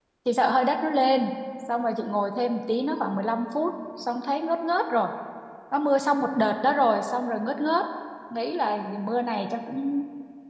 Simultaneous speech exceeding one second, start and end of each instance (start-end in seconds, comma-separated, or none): none